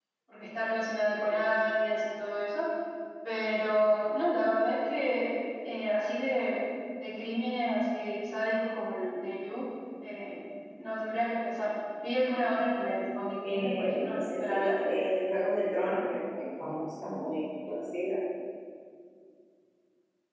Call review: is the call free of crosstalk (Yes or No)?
No